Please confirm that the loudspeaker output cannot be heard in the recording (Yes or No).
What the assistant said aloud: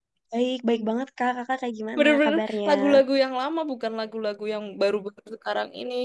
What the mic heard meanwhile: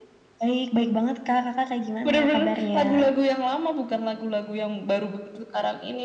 No